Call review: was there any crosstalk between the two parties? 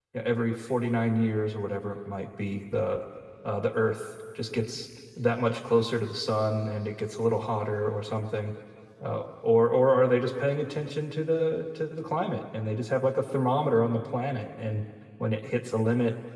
No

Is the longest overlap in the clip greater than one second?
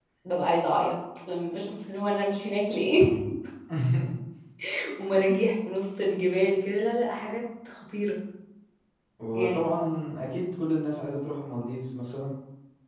No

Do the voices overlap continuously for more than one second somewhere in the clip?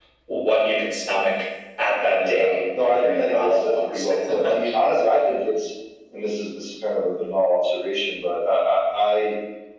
Yes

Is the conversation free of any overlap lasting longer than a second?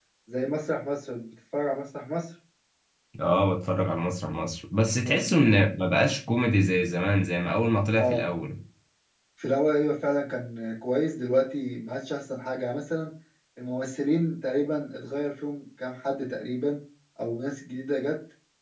Yes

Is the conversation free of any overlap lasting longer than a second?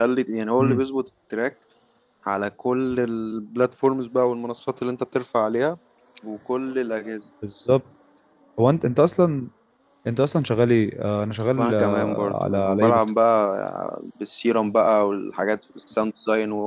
No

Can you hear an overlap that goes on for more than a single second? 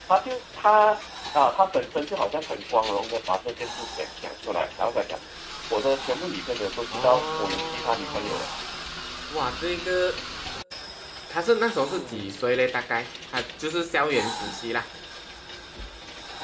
Yes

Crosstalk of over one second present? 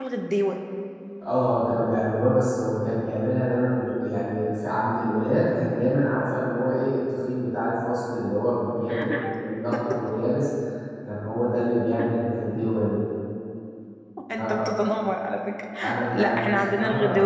Yes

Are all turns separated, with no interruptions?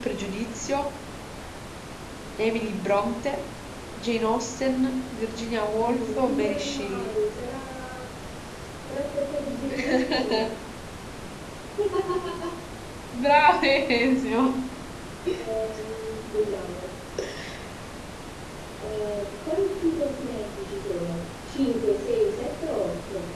No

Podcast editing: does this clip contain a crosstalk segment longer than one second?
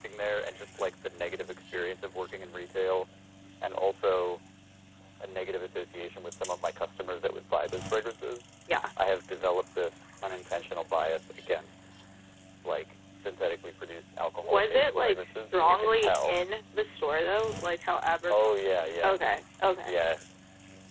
Yes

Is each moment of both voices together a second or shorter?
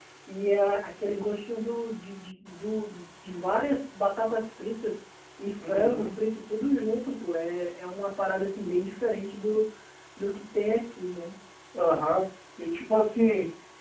Yes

